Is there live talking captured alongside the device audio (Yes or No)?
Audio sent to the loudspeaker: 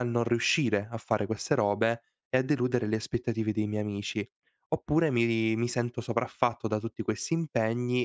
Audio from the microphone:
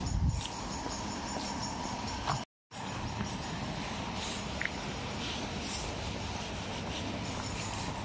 No